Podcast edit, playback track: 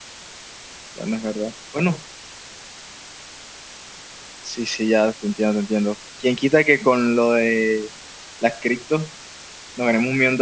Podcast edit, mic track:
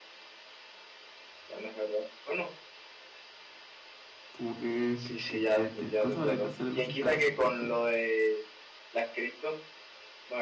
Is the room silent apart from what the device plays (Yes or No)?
No